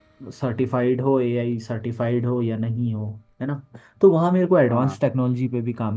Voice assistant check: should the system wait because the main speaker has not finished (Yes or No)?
Yes